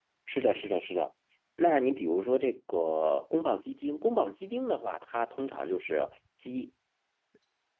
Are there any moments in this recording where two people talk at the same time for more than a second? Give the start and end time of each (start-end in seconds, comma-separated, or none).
none